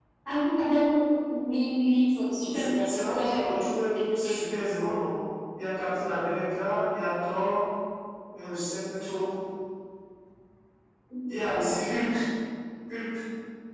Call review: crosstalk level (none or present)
present